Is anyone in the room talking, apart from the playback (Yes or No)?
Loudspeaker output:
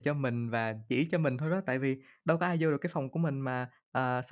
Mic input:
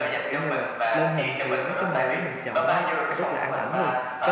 Yes